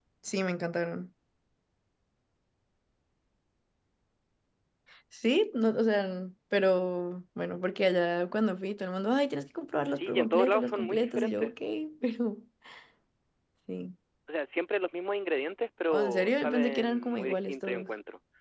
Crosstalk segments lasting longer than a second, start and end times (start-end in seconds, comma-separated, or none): 9.9-11.5, 15.9-17.9